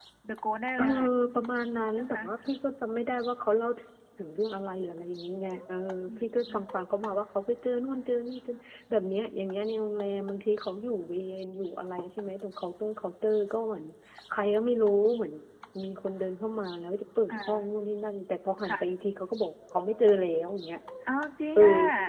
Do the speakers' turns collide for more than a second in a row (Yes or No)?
No